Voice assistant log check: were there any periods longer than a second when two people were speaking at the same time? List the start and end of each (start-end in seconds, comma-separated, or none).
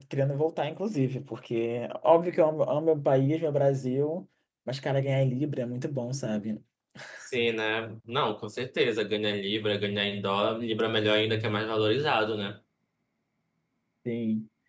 none